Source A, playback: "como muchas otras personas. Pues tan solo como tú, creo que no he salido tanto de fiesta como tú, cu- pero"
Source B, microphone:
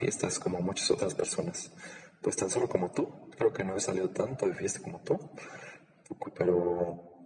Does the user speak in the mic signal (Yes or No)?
No